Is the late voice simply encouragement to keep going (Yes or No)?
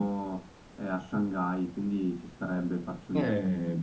No